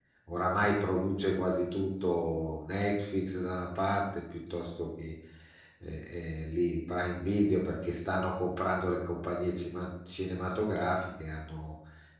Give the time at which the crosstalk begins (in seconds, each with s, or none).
none